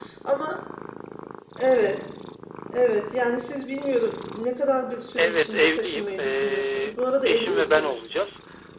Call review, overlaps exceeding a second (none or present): present